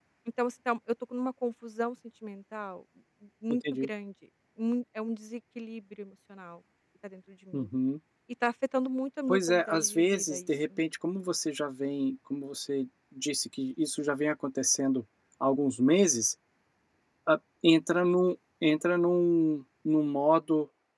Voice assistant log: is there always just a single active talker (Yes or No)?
No